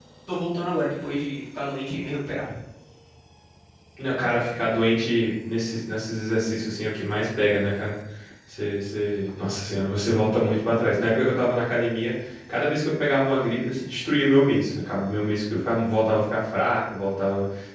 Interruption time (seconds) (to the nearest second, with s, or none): none